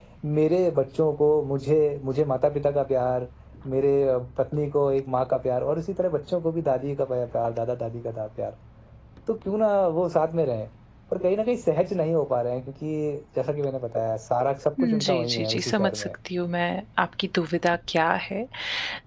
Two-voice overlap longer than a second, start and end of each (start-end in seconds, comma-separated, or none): 14.8-16.1